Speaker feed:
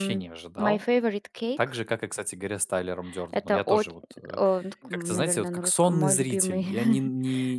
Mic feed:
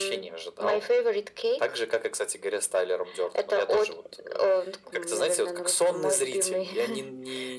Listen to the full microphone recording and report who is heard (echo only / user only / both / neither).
echo only